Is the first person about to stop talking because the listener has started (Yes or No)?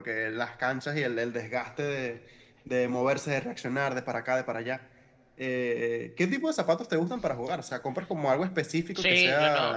Yes